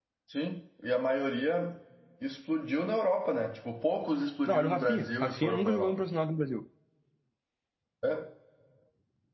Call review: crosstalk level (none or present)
present